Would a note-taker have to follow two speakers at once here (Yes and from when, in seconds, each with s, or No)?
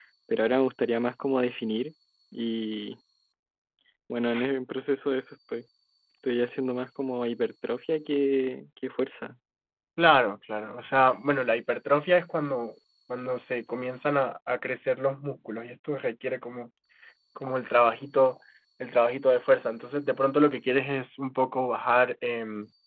No